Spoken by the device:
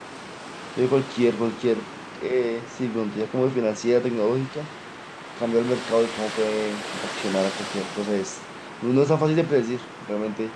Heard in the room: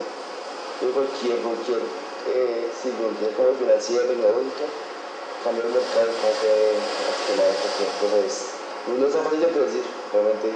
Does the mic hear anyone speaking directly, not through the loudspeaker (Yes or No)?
No